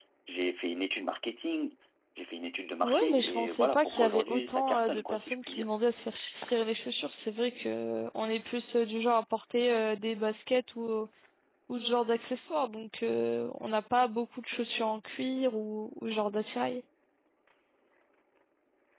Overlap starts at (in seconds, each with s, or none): 2.8 s